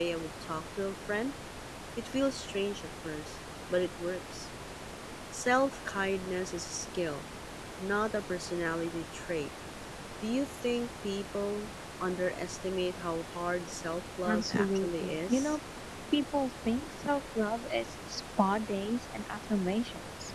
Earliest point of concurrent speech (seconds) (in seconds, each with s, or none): 14.2 s